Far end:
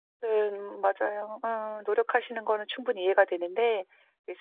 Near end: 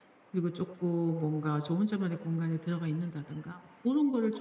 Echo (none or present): none